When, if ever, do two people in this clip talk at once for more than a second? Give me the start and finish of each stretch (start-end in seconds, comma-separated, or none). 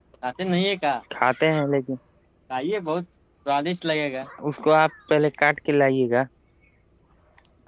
none